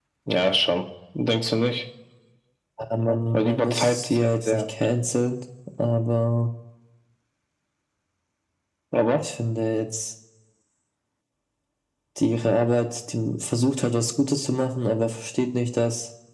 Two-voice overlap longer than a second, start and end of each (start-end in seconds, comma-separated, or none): 3.3-4.6